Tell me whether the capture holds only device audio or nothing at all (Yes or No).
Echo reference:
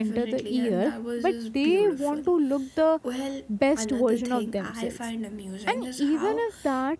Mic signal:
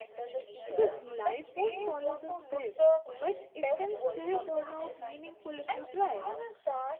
No